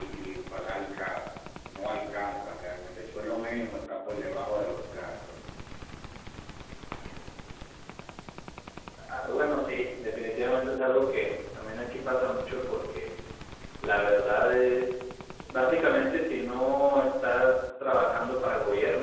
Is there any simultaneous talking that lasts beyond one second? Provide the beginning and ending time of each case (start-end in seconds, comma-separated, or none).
none